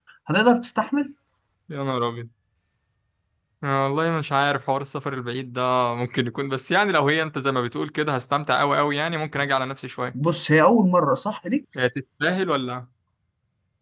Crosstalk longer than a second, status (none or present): none